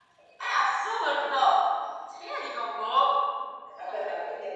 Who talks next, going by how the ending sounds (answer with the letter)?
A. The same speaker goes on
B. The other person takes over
B